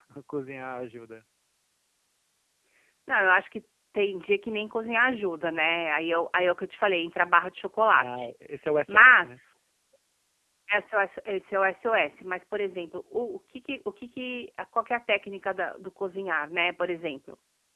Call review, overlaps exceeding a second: none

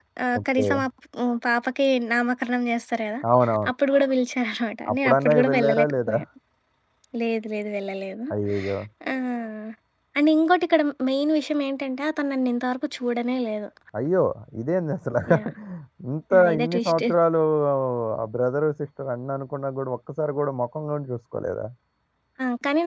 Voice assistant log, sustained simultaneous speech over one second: present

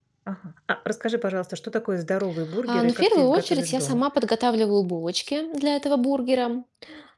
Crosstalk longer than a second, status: present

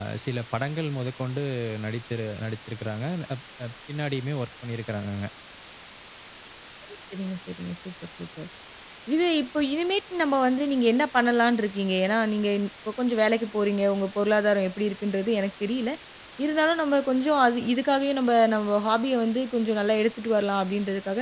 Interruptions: none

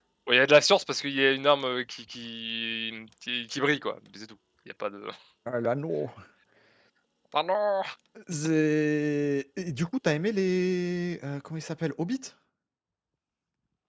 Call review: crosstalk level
none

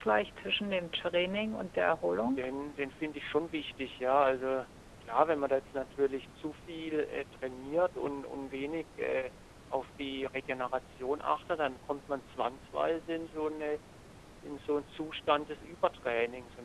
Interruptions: none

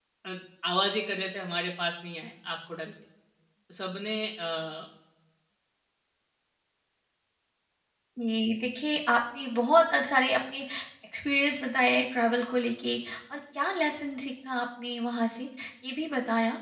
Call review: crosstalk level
none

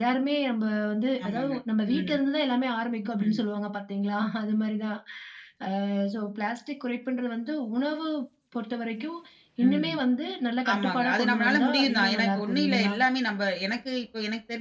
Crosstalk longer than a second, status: present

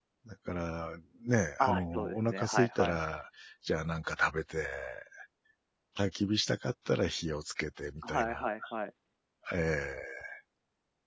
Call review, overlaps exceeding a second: present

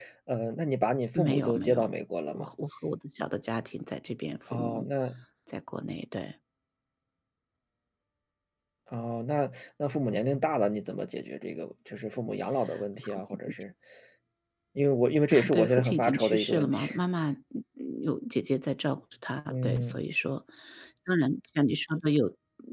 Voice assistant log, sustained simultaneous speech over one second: present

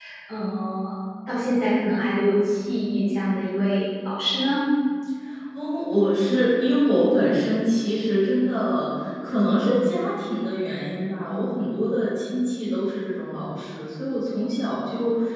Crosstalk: none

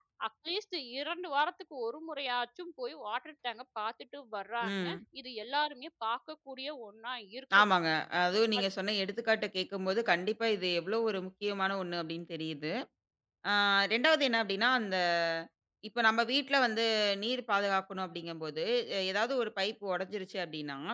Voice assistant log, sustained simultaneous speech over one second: none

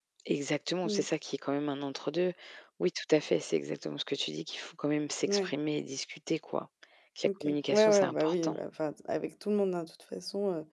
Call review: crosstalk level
present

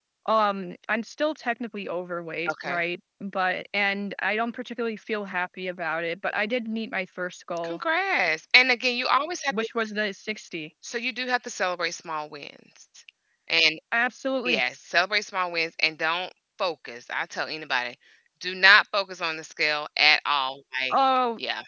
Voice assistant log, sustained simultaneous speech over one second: none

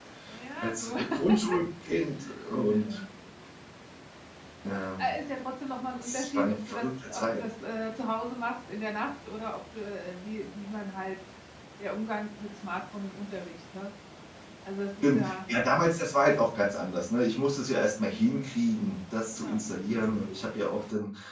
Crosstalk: present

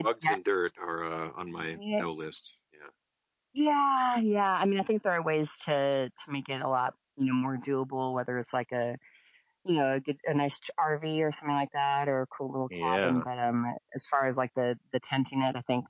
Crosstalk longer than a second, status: none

